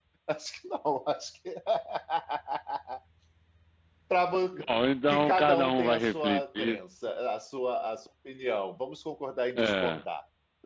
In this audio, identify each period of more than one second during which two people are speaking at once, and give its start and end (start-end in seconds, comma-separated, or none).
5.1-6.8